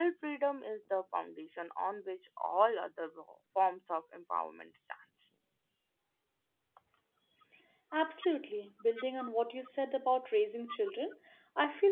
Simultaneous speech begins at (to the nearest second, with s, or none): none